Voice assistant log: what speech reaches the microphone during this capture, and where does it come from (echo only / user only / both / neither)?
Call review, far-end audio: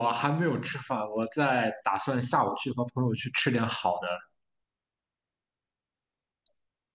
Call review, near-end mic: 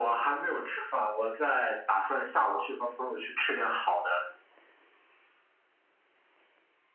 echo only